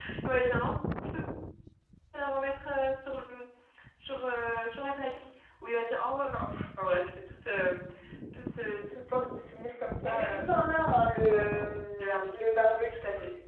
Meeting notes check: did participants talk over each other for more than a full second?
No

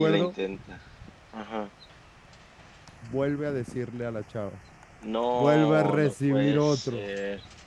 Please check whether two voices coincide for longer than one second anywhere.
Yes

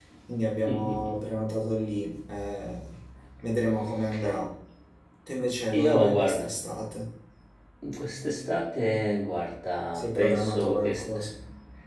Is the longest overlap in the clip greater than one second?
Yes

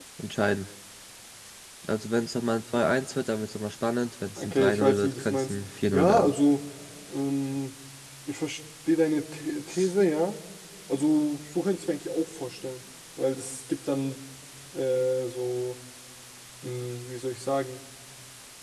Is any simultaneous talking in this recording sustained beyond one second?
Yes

